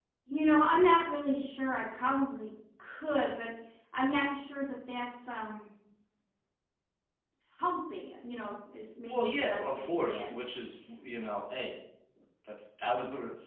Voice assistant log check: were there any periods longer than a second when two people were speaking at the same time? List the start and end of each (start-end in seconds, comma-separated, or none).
9.1-10.3